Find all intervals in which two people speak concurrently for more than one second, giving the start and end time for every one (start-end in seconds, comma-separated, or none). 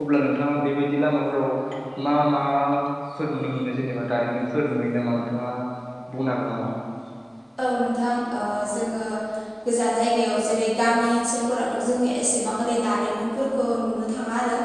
none